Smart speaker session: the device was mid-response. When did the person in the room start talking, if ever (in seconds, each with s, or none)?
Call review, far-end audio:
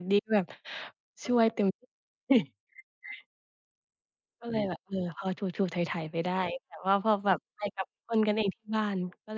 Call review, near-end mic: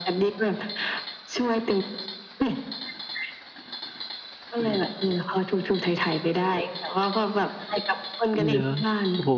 8.4 s